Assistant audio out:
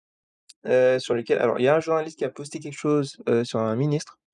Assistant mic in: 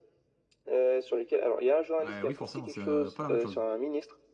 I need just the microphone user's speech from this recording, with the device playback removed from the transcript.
Heu, oui, forcément, c'est, heu, pas la même chose.

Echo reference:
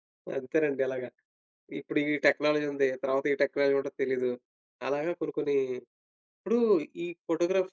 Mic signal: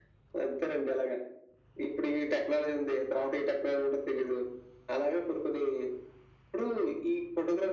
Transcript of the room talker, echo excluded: none

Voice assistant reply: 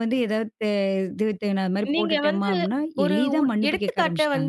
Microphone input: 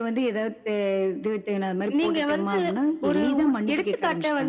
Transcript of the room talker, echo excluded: none

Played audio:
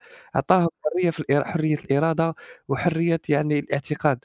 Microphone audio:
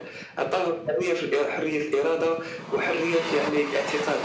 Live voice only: none

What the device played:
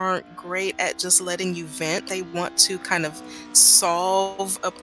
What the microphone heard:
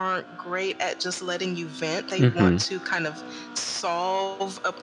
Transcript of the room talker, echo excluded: Mm-hmm.

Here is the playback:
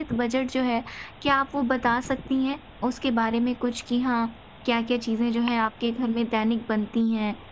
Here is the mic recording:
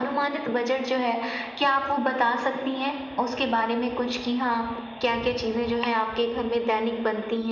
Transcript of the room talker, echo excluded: none

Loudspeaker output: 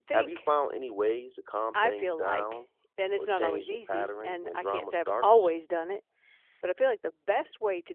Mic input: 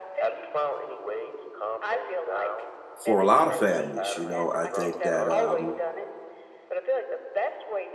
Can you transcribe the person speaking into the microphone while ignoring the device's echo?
for a lot of families. You know, I think that um,

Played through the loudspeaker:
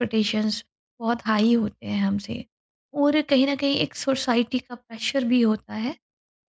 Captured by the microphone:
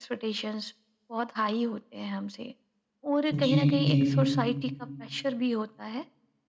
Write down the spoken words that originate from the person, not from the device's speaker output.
जी, जी।

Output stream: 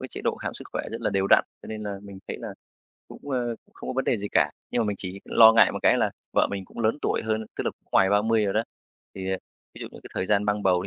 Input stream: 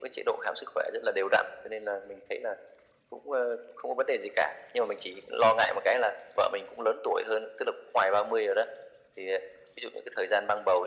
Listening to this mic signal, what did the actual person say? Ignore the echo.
none

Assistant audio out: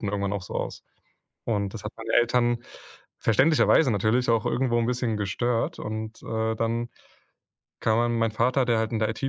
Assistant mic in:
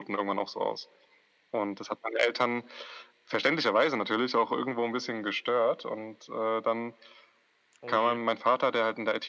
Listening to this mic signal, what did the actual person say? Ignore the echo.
Oh je.

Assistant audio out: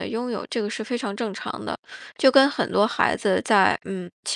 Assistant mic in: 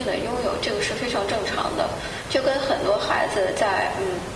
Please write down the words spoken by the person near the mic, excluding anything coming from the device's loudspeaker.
none

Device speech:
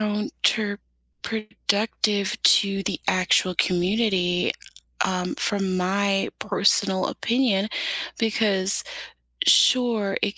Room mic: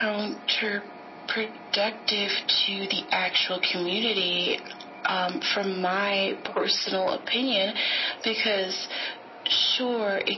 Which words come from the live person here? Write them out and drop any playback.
none

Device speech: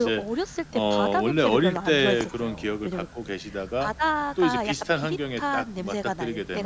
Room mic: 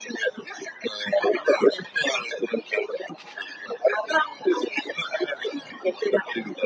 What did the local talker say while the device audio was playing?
none

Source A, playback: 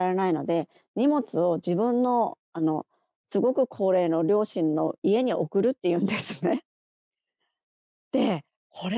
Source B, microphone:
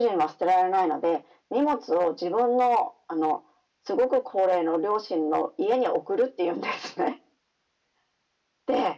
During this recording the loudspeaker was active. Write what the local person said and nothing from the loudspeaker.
none

